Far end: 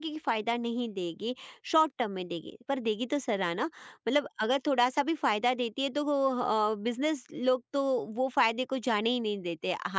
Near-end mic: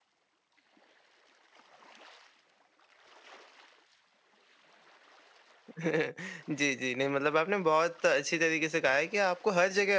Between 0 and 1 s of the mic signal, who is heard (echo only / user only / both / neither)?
neither